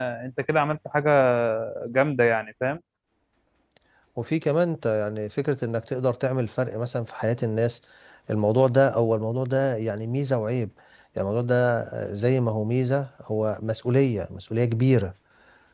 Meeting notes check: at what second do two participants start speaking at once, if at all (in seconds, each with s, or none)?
none